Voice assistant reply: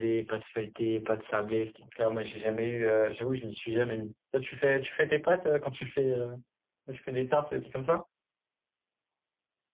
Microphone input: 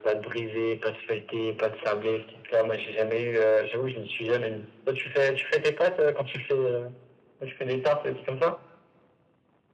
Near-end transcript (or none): none